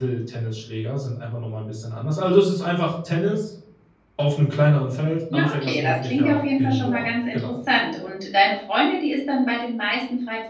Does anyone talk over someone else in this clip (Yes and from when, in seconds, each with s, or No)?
Yes, from 5.3 s